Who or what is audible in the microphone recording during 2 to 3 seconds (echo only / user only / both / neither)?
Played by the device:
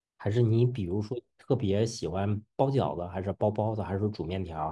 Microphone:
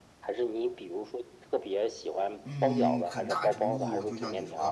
both